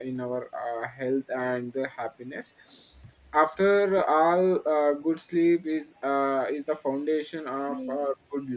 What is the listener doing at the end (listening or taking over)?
listening